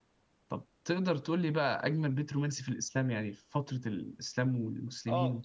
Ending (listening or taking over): taking over